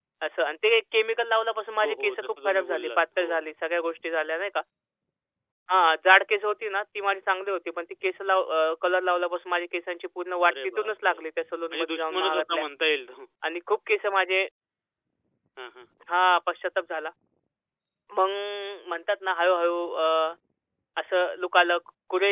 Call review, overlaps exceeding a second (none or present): present